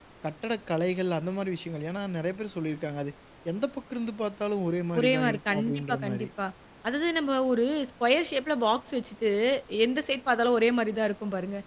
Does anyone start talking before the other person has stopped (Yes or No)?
Yes